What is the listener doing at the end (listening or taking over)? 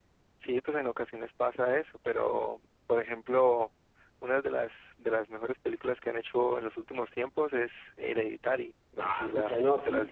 taking over